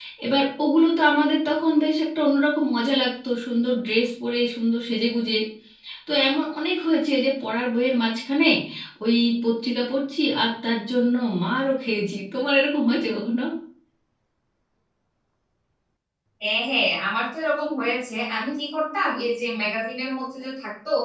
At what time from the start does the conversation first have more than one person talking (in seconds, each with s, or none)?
none